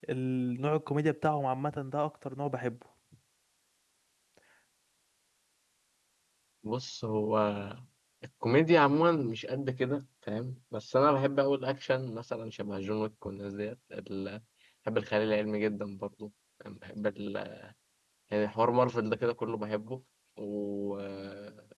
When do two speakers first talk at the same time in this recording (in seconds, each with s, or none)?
none